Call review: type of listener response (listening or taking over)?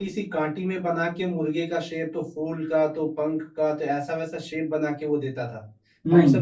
listening